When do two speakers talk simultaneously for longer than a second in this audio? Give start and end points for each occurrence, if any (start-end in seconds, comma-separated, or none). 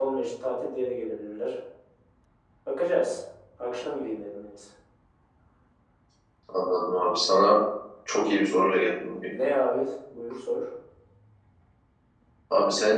none